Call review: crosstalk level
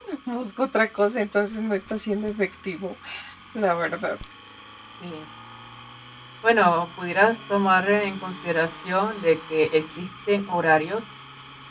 none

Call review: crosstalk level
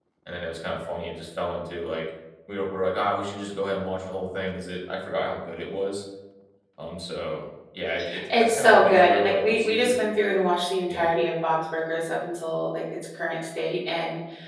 present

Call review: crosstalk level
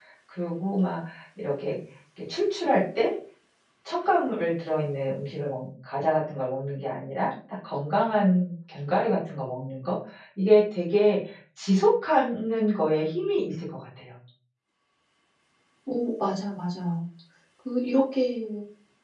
none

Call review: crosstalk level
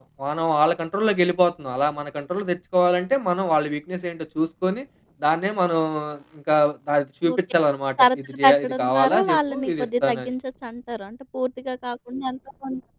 present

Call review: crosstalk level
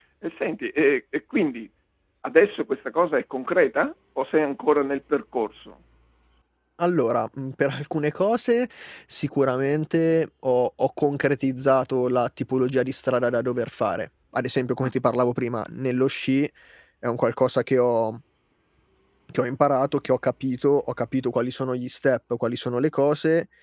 none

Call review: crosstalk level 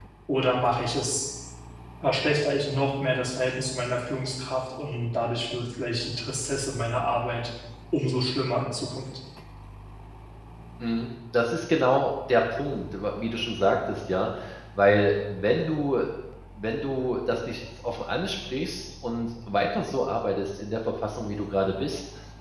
none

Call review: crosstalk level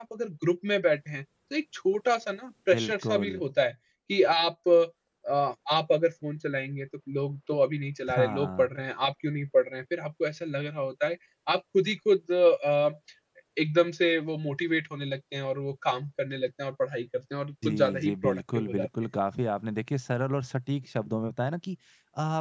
present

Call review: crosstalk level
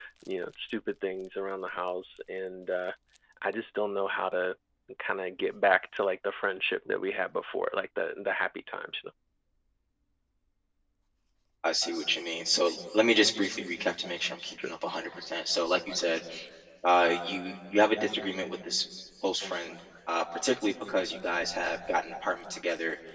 none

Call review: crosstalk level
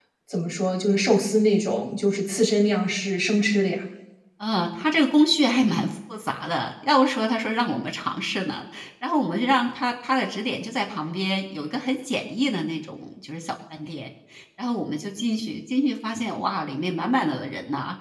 none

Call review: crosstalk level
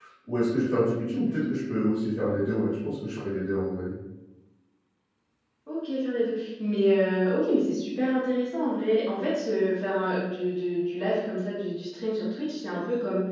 none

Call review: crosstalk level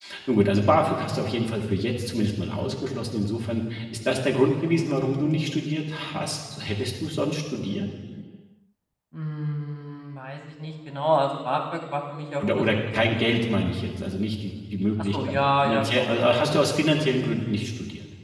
present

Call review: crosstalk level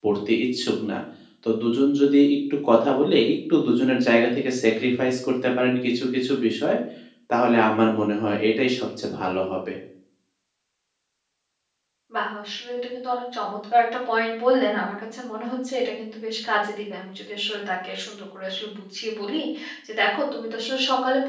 none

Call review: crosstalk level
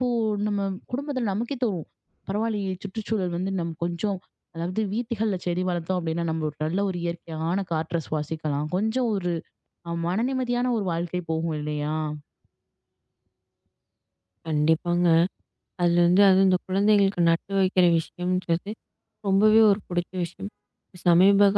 none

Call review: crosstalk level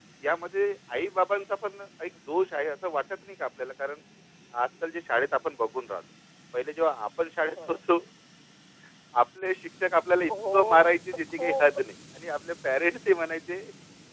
present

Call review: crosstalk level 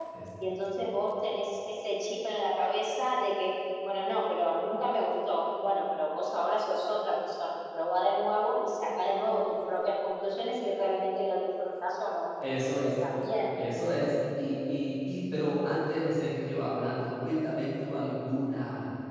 none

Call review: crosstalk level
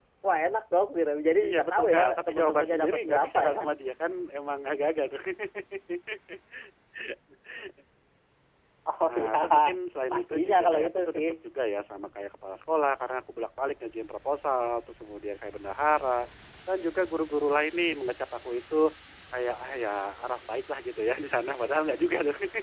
present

